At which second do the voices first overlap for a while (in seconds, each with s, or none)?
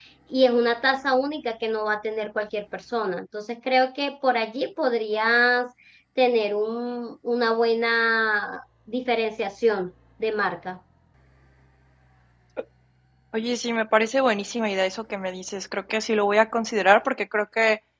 none